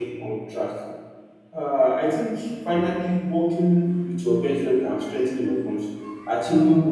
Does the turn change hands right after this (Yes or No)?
No